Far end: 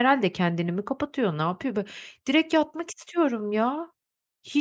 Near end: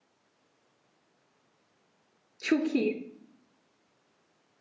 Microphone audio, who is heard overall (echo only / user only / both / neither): user only